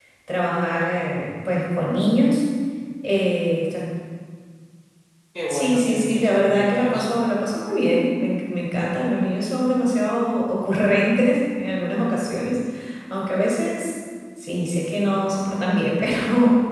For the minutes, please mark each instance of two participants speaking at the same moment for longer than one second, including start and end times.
5.5-7.1

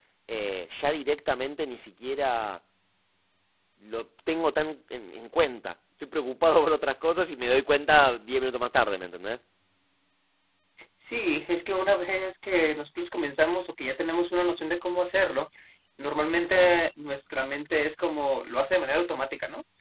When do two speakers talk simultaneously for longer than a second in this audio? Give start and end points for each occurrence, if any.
none

